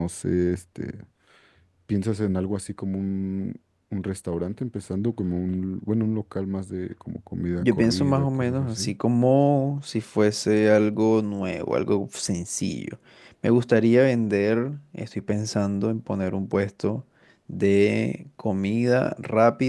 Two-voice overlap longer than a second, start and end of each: 7.6-8.9

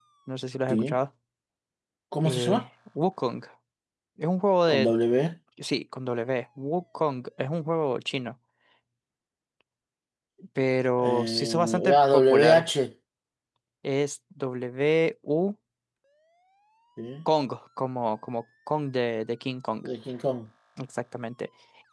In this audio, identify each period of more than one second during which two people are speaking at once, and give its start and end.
11.0-12.6

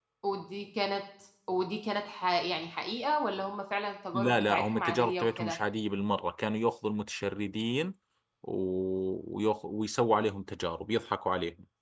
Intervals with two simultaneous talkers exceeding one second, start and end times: 4.1-5.6

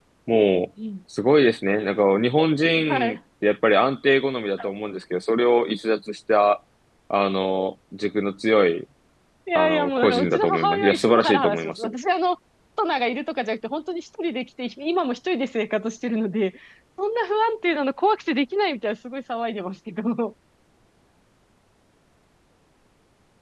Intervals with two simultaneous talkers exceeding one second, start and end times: 9.6-11.9

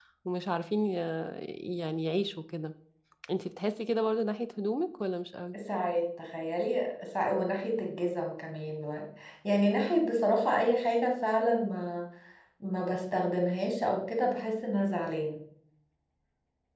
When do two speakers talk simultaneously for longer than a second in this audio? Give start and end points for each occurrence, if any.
none

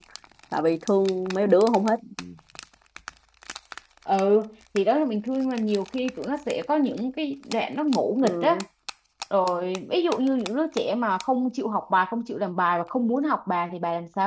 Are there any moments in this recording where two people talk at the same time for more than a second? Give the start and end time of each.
none

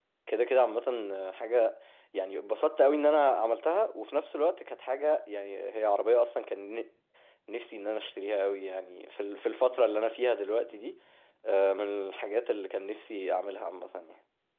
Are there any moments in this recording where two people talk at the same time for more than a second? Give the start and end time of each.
none

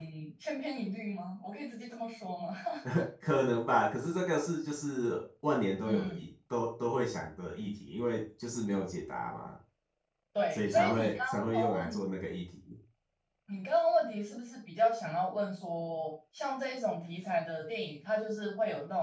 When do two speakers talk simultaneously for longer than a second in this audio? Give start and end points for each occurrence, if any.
10.5-12.0

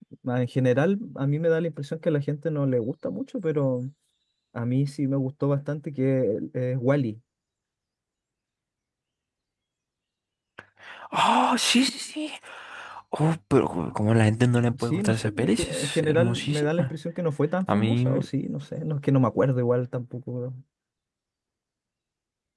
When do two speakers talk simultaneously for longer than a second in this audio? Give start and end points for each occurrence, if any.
14.8-16.9

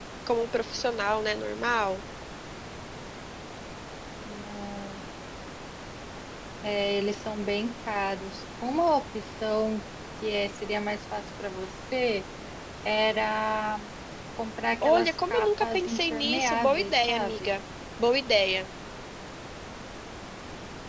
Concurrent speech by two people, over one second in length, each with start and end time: 14.8-17.5

